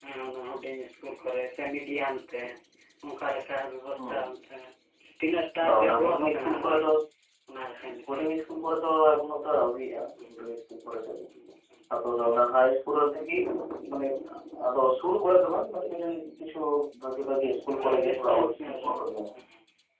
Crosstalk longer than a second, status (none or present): present